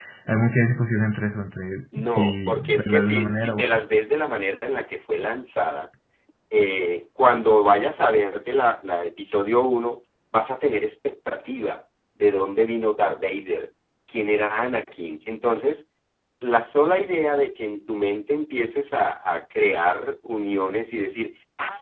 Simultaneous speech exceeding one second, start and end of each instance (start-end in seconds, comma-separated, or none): 2.0-3.8